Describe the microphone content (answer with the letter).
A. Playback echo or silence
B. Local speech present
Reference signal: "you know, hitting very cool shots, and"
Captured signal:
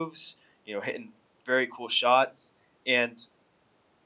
A